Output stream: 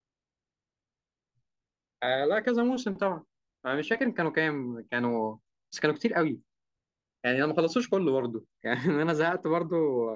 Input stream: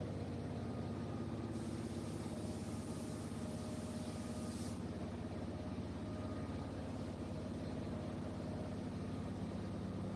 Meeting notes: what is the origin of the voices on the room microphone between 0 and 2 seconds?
neither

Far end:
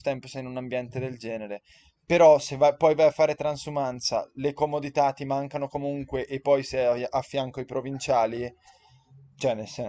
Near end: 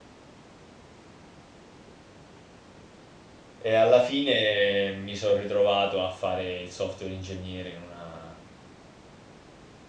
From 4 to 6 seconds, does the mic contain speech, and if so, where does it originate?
user only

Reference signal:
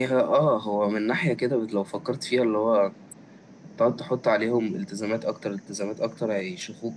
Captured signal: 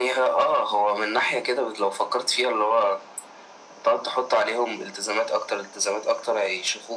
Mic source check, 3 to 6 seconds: echo only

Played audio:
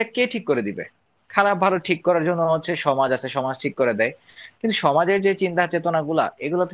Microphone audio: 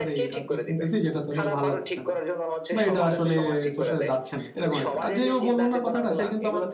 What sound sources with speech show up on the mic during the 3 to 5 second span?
both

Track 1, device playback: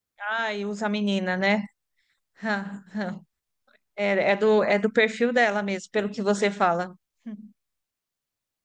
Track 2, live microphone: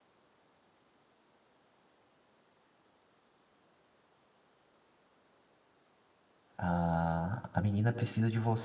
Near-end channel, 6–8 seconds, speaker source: user only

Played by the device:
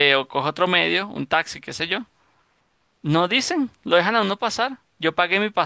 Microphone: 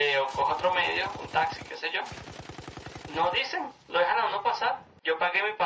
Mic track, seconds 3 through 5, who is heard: echo only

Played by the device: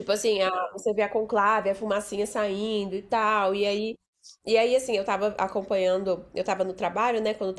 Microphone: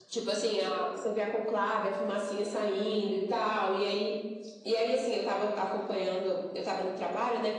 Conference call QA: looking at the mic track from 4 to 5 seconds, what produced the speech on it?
echo only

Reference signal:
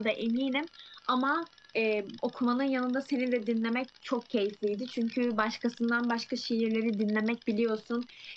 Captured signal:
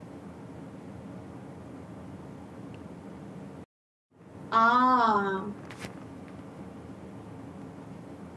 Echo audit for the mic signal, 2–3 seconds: neither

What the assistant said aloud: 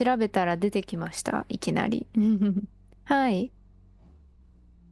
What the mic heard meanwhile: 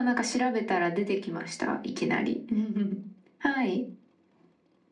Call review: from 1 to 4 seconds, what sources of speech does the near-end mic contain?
echo only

